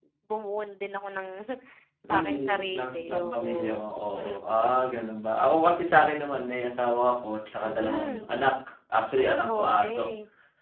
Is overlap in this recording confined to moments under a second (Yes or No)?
No